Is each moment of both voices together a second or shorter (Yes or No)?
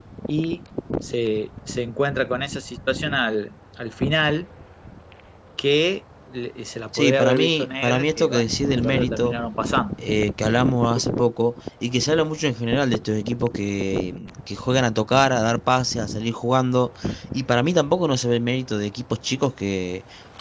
No